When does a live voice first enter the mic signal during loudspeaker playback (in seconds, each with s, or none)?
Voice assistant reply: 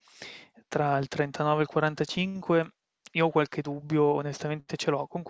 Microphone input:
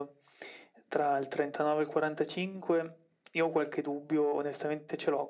none